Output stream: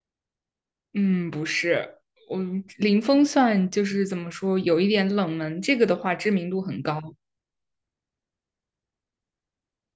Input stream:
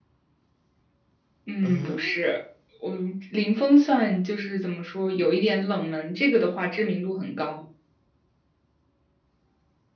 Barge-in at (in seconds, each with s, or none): 1.6 s